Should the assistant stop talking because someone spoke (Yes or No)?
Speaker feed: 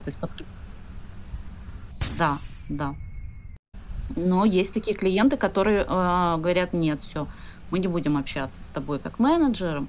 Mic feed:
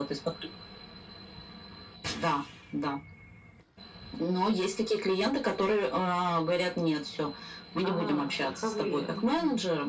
Yes